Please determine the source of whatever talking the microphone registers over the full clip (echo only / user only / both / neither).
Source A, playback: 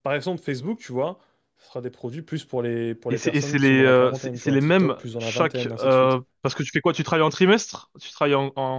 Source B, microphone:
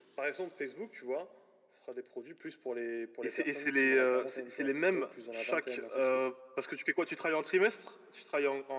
echo only